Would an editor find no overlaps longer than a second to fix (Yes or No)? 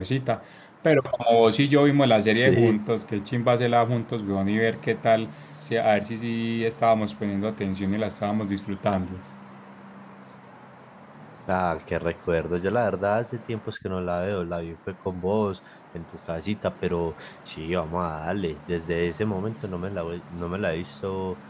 Yes